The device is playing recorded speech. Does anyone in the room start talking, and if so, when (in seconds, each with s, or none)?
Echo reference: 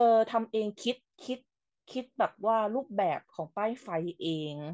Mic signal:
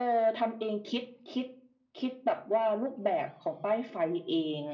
none